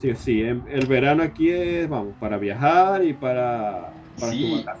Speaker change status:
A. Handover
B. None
A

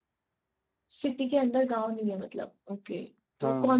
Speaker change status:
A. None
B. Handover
A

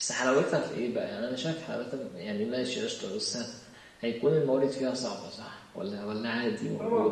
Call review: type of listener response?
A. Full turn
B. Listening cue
A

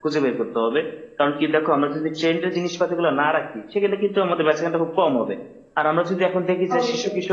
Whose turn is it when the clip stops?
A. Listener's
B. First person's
B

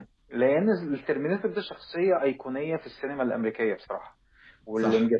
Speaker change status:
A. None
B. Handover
A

